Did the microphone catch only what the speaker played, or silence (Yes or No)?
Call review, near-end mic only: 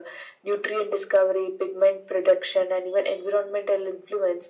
Yes